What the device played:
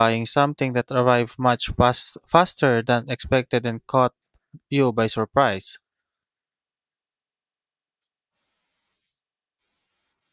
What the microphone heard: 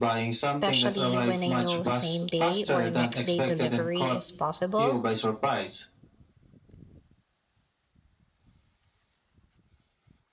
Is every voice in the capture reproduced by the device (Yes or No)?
No